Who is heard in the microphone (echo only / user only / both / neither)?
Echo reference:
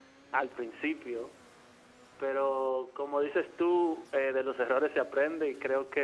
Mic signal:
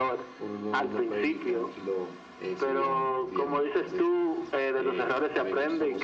both